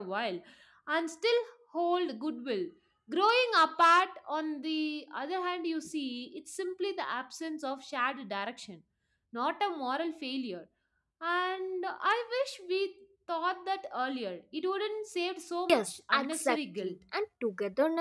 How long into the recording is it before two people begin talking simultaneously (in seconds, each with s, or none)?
15.7 s